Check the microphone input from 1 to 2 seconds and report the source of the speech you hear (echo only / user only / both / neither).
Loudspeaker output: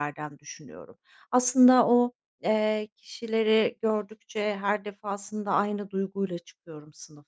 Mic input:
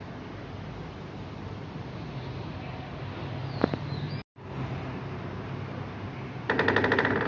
neither